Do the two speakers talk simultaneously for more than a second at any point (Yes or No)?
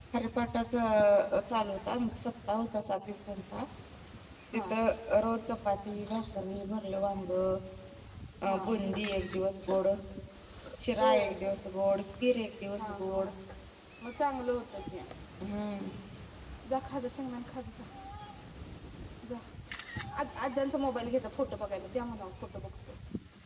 No